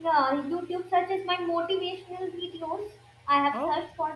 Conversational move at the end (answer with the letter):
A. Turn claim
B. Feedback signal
B